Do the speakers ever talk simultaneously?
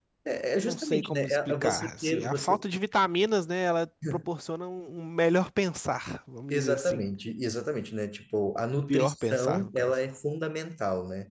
Yes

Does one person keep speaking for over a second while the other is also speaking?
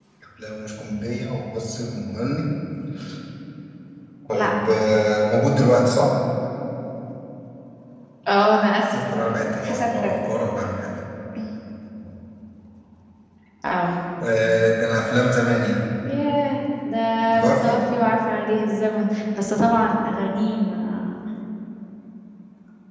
Yes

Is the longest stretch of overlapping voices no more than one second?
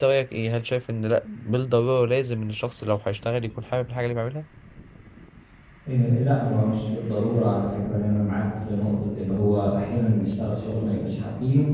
Yes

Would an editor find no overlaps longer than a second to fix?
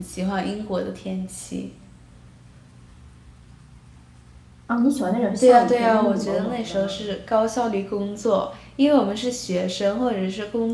No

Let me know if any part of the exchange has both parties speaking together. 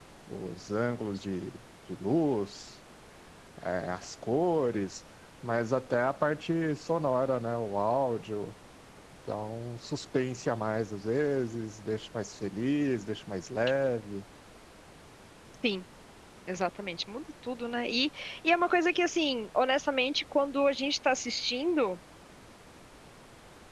No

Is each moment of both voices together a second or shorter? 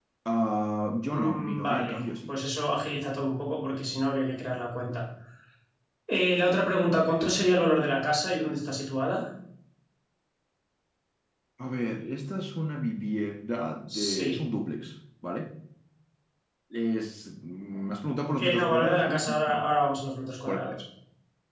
No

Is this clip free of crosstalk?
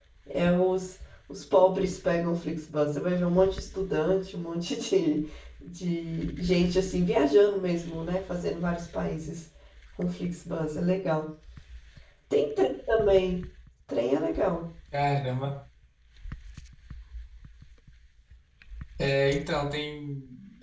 Yes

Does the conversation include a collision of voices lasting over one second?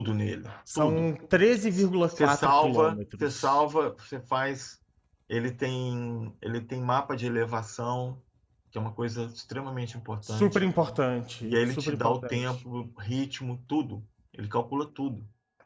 Yes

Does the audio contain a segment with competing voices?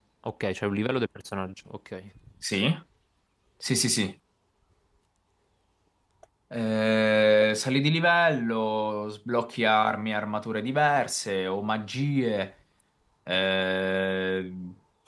No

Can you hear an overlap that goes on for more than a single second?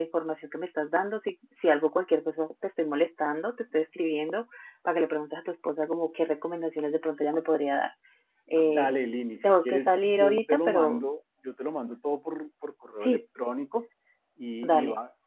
Yes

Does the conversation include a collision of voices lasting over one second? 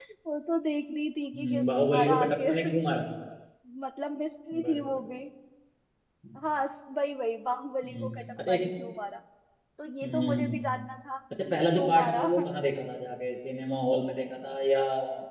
Yes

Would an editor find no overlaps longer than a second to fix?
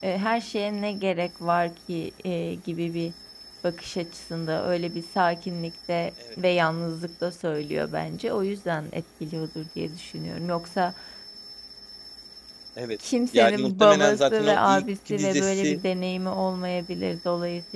No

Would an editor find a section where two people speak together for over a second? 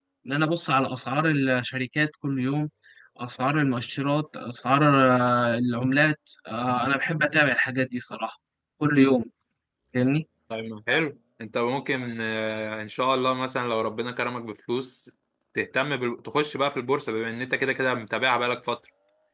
No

